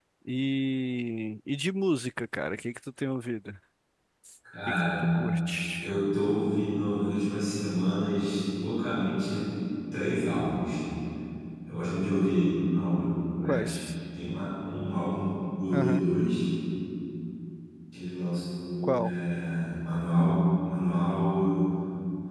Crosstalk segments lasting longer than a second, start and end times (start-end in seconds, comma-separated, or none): none